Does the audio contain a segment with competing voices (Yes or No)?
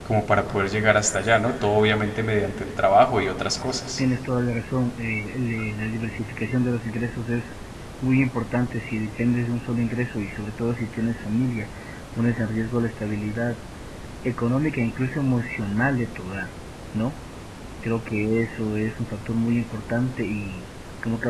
No